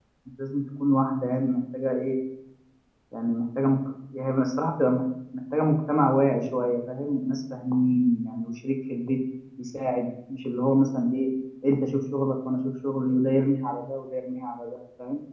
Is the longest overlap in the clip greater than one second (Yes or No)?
No